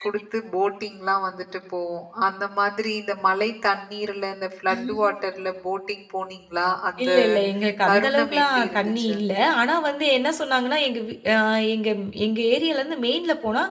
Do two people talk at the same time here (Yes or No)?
Yes